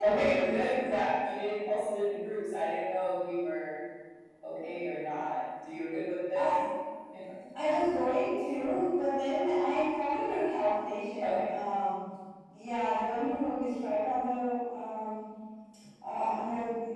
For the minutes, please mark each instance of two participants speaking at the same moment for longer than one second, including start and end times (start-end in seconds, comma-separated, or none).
none